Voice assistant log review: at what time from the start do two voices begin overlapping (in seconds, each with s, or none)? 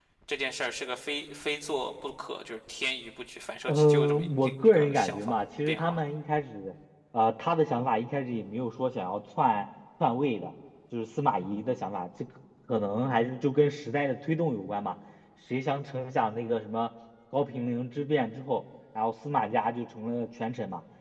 3.7 s